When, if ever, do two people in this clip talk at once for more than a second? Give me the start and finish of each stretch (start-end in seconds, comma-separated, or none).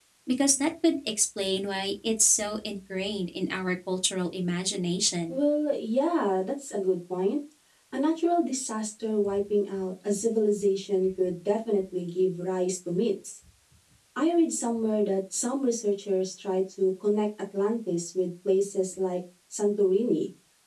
none